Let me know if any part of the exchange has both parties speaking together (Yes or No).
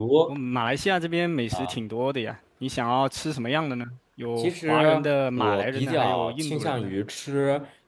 Yes